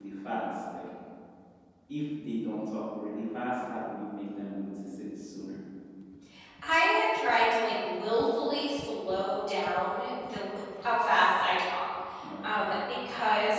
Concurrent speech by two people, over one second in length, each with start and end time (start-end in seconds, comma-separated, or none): none